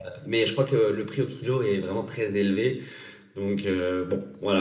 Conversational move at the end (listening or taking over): taking over